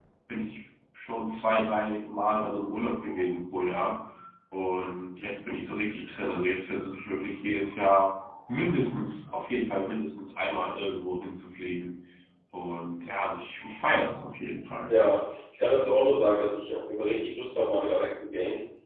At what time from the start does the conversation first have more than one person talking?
none

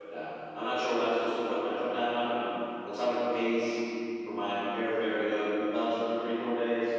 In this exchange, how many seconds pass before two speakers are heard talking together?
none

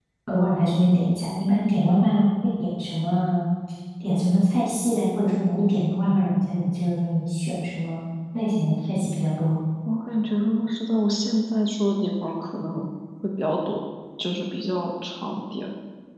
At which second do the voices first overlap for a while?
none

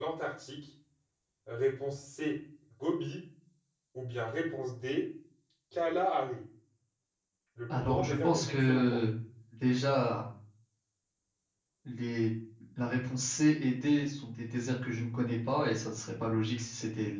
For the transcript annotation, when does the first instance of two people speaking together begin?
7.8 s

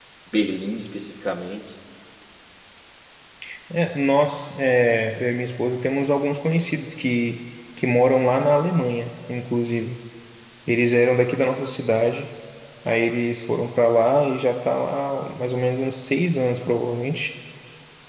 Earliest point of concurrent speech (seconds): none

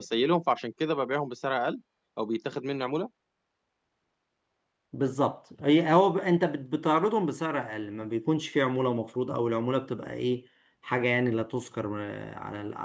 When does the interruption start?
none

